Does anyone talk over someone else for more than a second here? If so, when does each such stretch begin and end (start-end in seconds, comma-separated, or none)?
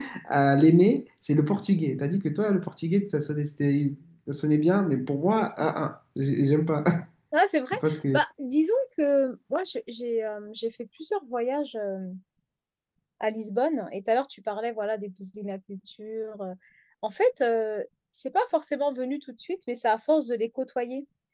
none